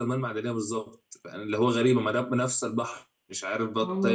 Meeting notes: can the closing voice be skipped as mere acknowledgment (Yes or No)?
No